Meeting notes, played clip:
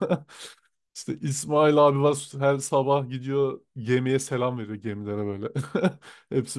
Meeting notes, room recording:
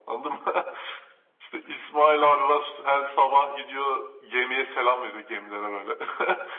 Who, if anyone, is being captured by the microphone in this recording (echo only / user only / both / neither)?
echo only